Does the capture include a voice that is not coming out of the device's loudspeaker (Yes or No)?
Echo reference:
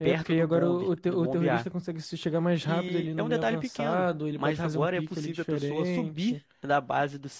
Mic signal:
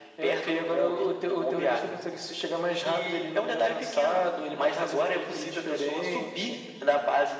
No